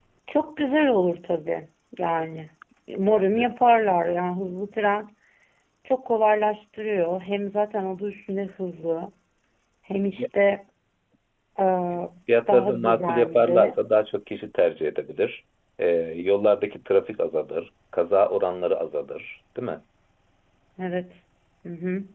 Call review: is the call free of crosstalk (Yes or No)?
No